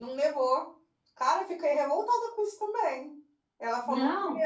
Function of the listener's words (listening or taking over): listening